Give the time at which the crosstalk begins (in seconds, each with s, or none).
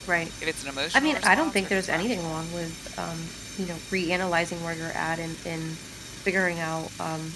0.9 s